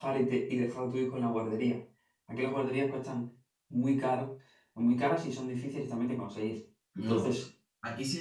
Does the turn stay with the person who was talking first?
No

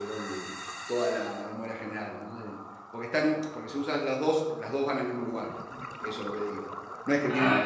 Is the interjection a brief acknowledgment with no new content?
Yes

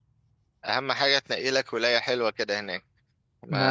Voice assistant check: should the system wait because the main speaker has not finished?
Yes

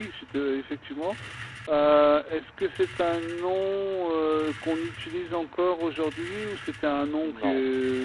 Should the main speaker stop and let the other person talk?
Yes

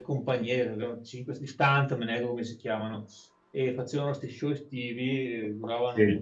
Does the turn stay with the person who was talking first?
Yes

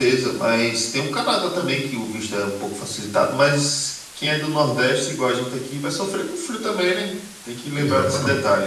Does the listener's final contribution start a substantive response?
Yes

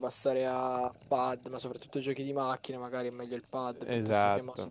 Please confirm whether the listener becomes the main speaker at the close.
No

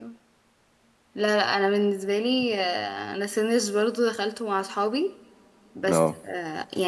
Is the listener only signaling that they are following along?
Yes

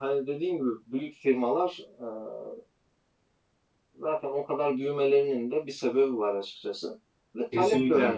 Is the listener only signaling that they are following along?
Yes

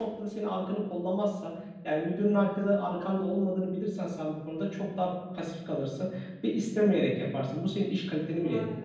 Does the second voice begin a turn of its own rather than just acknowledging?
Yes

